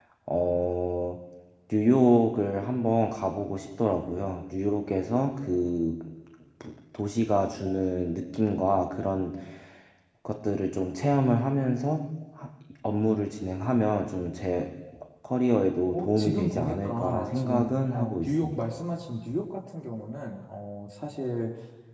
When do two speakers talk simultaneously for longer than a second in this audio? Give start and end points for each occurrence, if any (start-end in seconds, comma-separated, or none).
15.9-18.6